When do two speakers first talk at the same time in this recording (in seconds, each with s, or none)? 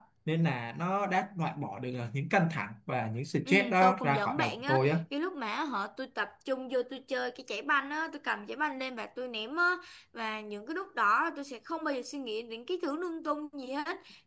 3.5 s